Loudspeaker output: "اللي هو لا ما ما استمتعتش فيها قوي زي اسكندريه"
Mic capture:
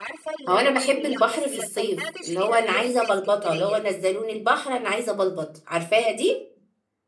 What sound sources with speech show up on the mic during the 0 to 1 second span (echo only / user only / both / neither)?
both